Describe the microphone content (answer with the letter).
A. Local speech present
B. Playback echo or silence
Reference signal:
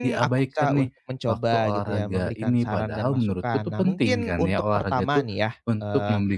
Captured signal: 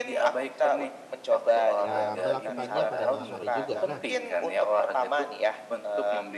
A